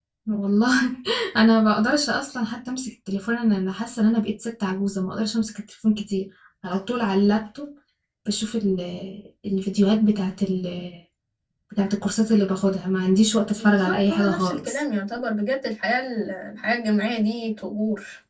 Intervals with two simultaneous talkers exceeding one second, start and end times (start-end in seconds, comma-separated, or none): 13.6-14.8